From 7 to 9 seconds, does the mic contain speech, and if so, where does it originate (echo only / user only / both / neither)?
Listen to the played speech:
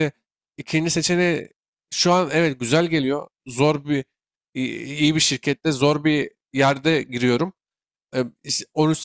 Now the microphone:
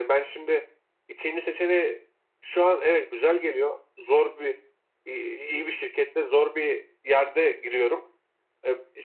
echo only